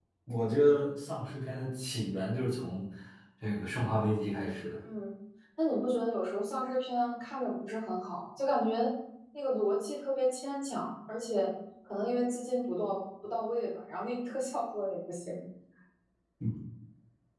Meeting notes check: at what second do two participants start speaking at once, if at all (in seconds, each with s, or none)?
none